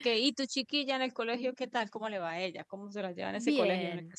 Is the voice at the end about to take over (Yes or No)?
Yes